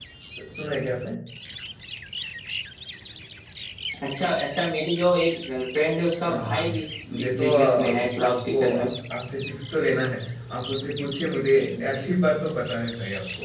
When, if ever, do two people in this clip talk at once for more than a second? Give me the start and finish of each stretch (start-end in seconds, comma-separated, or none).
7.1-8.9